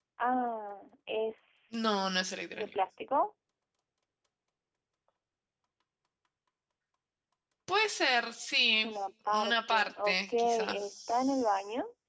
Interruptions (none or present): present